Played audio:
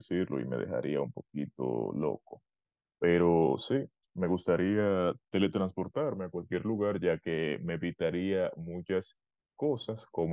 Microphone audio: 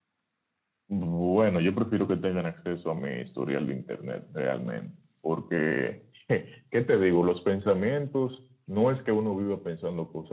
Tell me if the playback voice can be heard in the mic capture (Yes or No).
No